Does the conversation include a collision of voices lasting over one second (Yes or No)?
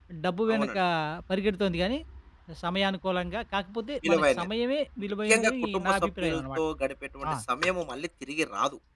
Yes